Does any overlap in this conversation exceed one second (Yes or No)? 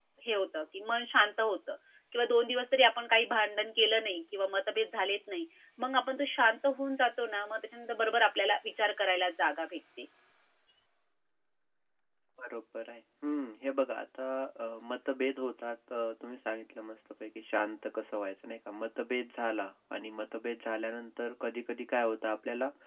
No